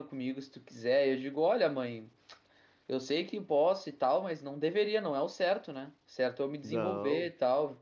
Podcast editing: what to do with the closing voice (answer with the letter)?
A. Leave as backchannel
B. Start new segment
A